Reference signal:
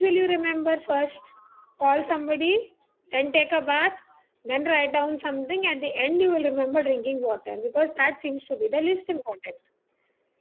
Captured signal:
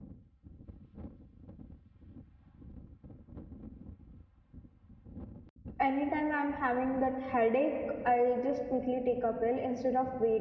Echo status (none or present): none